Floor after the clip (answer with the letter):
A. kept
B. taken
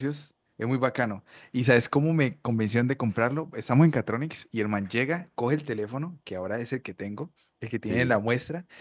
A